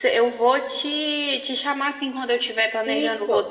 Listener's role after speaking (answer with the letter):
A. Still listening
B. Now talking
A